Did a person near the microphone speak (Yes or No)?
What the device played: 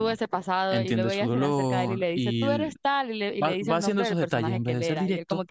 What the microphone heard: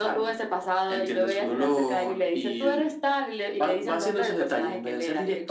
No